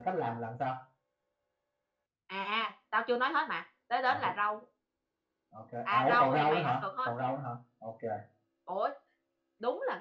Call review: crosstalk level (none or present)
present